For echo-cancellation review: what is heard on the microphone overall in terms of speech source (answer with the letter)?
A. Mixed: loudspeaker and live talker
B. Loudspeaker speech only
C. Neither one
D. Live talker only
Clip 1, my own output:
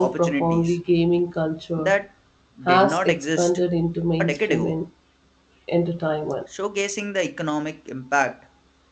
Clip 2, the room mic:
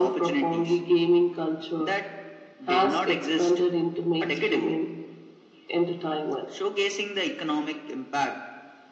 B